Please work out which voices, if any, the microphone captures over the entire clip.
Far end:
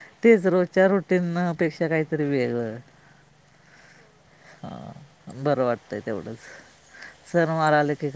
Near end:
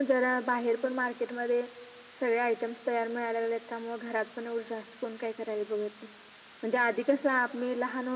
user only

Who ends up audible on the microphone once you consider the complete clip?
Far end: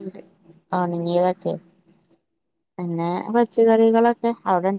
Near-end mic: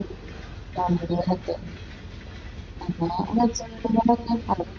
echo only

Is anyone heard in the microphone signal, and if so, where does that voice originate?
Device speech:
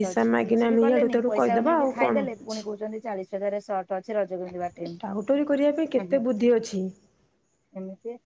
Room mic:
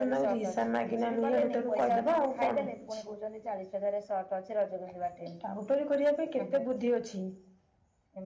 echo only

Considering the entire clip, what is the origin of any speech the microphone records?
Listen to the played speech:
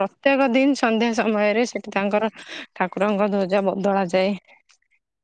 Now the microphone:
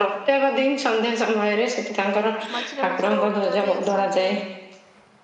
both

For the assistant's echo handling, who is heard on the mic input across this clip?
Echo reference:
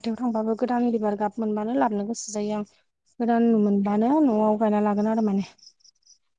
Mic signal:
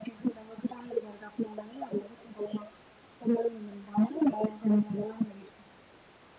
echo only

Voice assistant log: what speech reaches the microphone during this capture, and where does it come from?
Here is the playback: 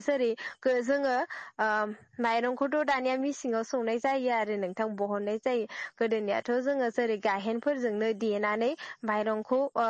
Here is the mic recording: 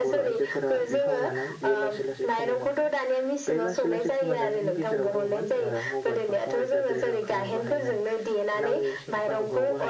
both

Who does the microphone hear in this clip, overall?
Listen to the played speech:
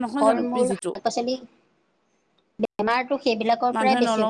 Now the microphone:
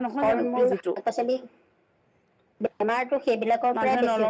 echo only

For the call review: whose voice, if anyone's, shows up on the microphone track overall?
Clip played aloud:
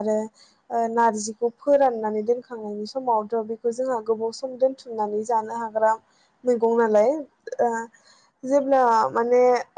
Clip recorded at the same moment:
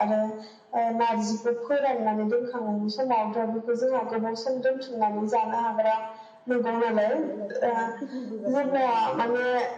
both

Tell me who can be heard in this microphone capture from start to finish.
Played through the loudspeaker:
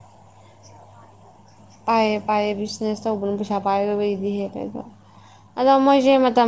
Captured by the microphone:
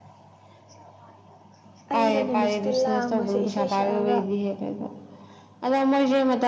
both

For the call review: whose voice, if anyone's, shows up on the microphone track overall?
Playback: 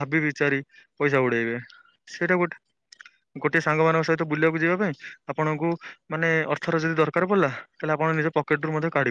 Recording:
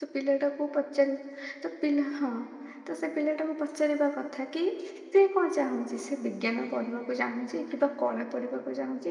user only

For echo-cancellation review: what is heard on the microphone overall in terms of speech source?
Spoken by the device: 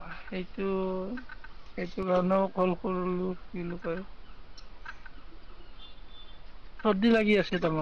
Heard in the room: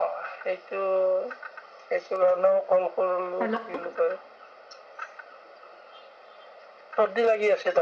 both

